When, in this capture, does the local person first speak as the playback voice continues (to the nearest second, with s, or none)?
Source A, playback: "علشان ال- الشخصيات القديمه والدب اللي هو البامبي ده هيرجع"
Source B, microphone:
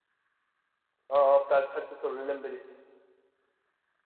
1 s